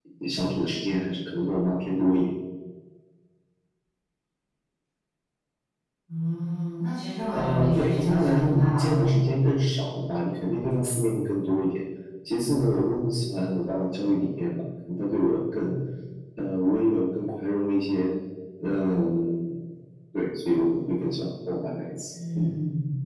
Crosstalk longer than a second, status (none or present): present